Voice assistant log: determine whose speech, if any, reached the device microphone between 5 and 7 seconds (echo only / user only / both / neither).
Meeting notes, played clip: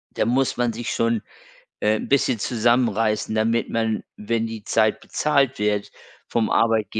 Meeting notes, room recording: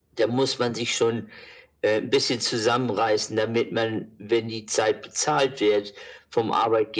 echo only